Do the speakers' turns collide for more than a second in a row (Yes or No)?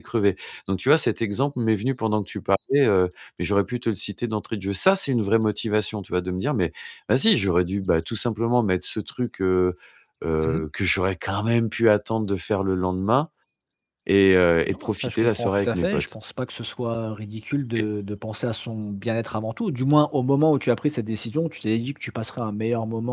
Yes